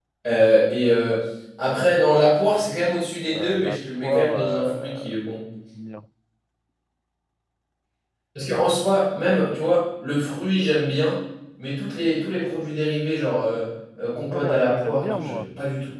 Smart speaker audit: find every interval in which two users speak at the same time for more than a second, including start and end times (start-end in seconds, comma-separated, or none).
3.3-5.1, 14.1-15.5